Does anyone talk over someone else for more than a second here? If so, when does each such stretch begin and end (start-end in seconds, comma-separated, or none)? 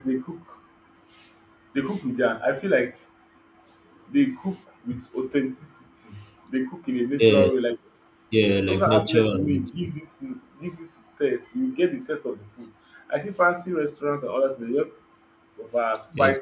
8.4-9.9